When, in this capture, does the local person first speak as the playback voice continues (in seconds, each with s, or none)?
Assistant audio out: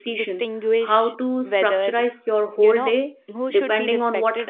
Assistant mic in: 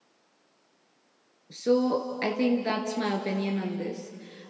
1.5 s